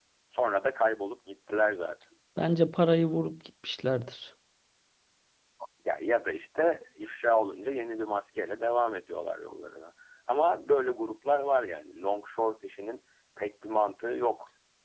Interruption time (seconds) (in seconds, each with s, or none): none